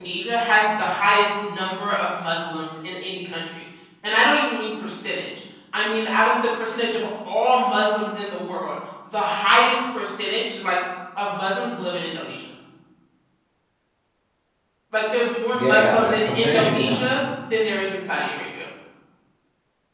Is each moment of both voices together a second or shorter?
No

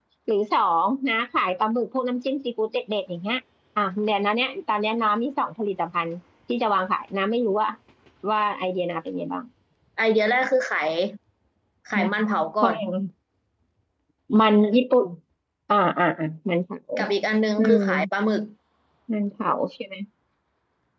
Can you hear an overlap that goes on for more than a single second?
No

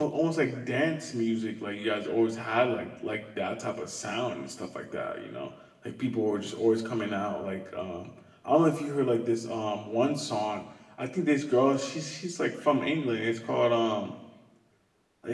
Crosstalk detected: No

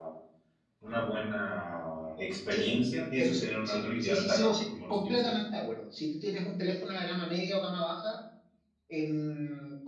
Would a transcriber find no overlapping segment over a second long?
No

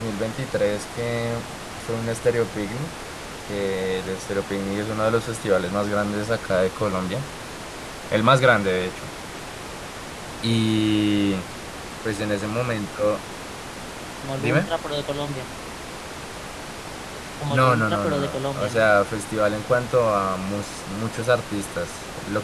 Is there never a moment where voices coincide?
No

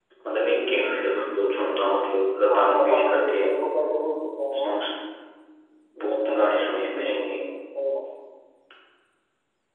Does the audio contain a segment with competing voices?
Yes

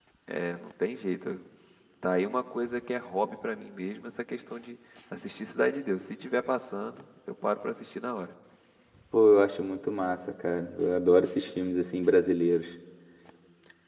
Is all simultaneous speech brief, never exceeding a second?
Yes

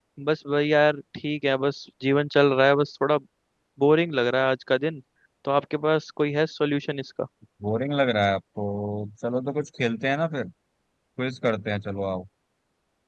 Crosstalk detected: No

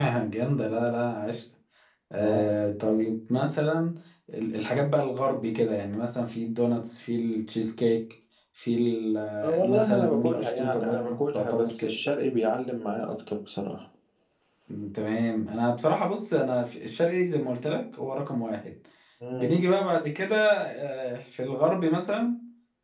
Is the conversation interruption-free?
No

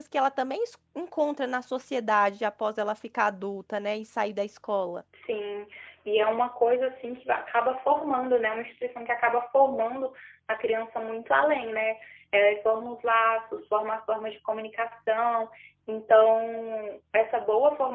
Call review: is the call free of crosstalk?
Yes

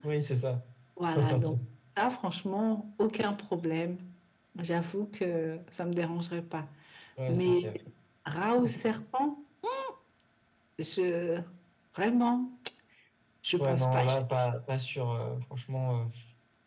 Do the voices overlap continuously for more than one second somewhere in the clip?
No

